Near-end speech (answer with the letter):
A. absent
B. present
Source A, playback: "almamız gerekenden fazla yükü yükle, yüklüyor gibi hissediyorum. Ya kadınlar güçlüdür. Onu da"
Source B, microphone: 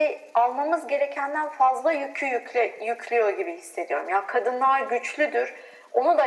A